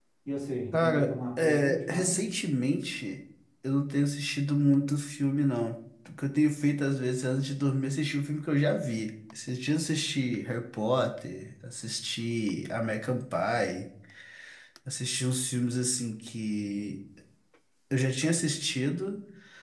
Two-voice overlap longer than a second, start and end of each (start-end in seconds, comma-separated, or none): 0.8-2.4